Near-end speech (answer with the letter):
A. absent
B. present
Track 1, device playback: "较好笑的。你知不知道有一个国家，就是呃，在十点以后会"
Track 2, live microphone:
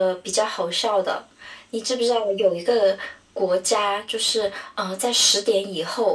A